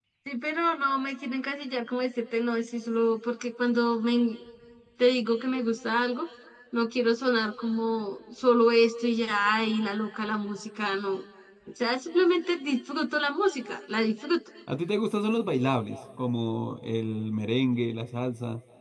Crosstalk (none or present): none